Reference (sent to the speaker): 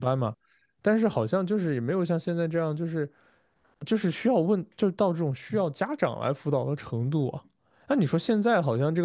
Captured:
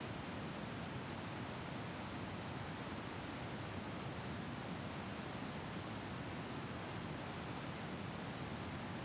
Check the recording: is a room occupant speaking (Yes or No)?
No